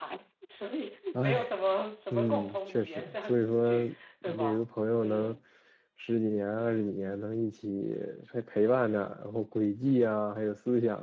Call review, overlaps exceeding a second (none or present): present